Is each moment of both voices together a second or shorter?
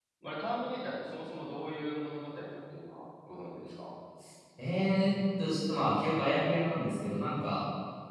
Yes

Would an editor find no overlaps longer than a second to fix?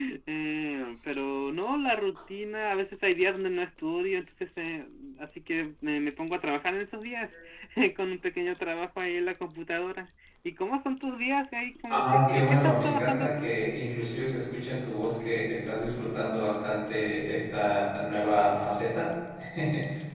No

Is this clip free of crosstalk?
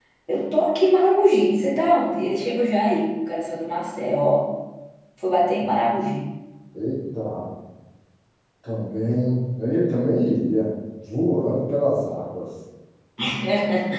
Yes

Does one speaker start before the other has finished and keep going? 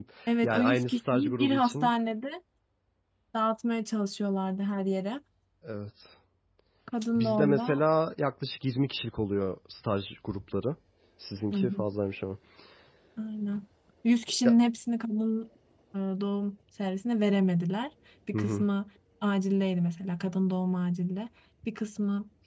Yes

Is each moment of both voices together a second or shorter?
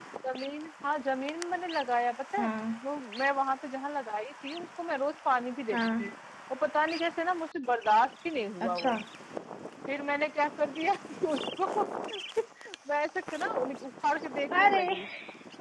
Yes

